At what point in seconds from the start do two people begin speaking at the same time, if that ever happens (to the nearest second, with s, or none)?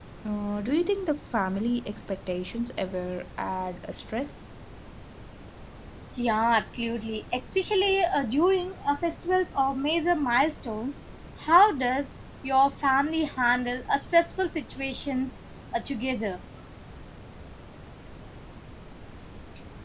none